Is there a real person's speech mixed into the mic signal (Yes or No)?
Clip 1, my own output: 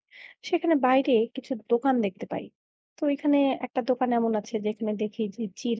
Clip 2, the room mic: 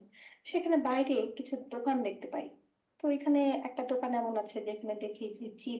No